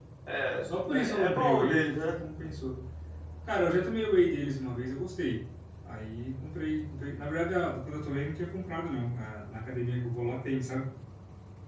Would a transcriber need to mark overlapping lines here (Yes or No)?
Yes